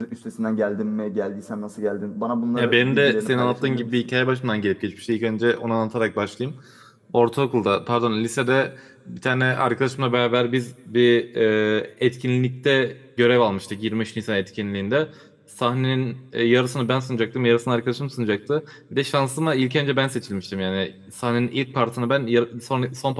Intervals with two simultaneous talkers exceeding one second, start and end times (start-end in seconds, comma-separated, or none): 2.5-3.9